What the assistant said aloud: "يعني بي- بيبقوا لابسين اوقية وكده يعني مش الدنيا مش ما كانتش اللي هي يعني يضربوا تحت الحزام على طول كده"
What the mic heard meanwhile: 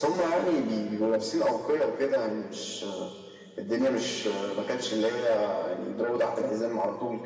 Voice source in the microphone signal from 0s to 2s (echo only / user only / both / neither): echo only